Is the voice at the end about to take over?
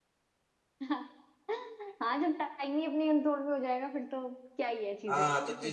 Yes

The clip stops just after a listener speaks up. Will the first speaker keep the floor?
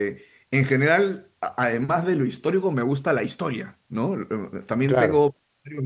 Yes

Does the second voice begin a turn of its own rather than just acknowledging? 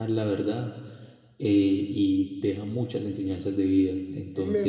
Yes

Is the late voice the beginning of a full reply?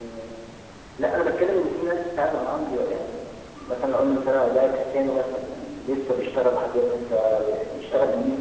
Yes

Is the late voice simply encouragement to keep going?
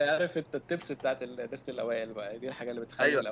No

